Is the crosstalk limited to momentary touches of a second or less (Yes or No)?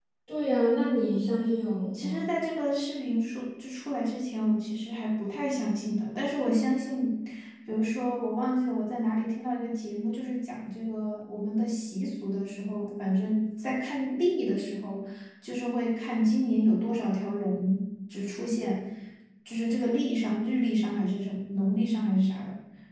Yes